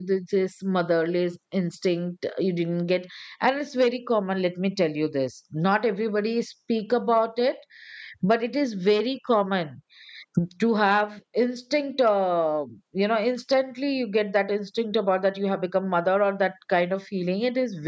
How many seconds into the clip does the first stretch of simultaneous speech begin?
none

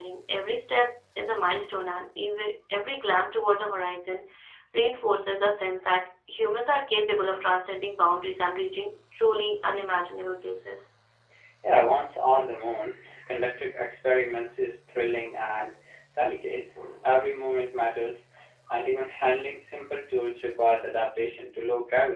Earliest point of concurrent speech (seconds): none

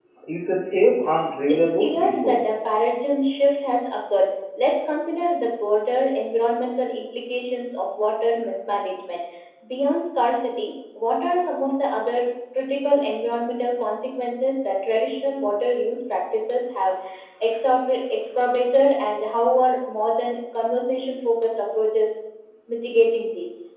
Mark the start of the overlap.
1 s

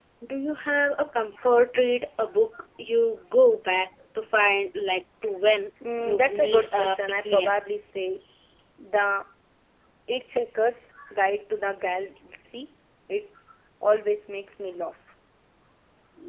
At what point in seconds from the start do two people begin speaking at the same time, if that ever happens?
6 s

